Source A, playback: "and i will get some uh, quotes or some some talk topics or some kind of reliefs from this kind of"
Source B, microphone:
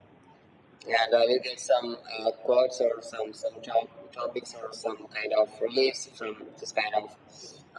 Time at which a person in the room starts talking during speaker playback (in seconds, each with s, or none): none